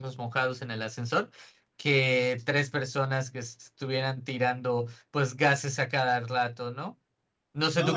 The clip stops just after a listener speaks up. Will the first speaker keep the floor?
No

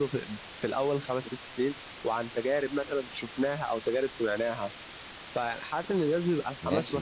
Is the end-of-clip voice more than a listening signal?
Yes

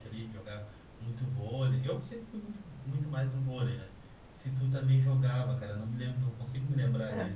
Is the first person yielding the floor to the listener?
Yes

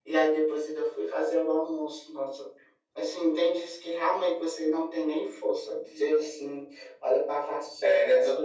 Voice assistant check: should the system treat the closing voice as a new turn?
Yes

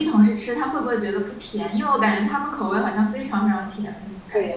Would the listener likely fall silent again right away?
No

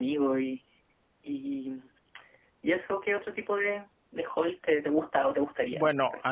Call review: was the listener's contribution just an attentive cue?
No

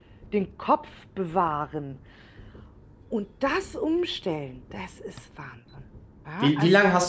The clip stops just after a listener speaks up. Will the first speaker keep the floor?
No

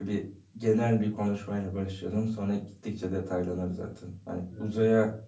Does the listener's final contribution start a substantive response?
No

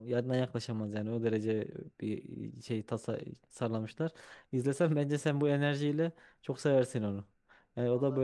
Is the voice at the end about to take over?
Yes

